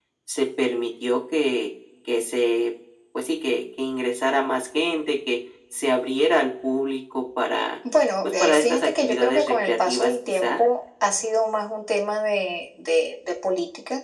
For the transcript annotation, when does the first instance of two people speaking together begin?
8.2 s

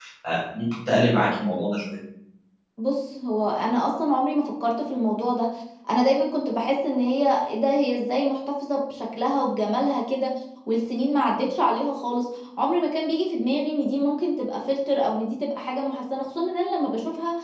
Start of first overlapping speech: none

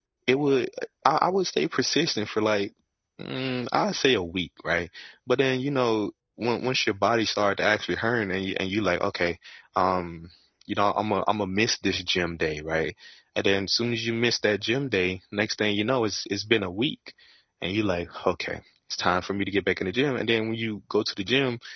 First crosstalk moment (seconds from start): none

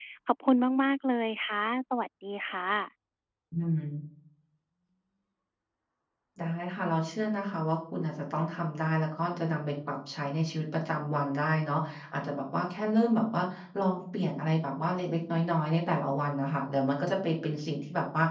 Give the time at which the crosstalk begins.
none

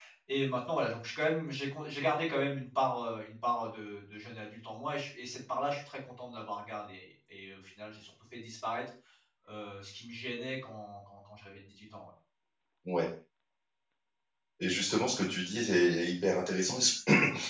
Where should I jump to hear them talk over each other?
none

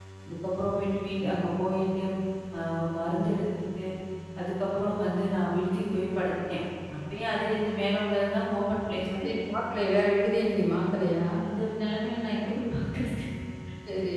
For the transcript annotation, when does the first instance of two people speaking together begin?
none

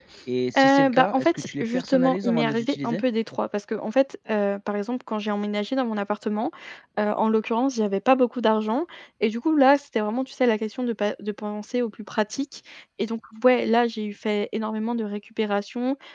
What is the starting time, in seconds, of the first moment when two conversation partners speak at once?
0.5 s

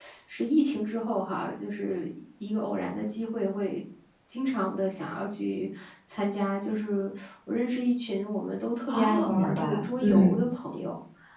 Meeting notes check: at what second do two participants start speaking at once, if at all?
8.9 s

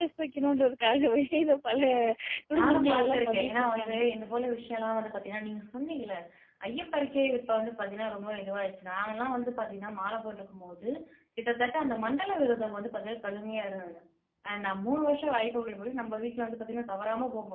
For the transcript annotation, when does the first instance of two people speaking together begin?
2.5 s

